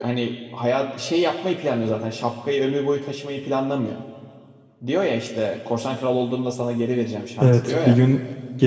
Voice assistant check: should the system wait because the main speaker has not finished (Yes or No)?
No